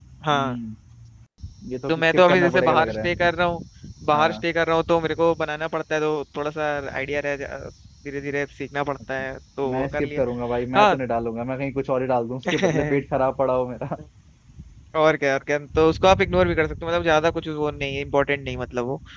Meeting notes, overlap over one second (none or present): present